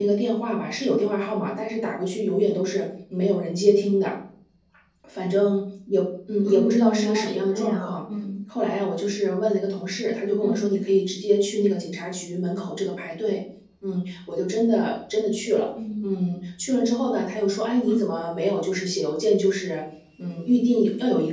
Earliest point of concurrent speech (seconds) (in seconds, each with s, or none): 6.5 s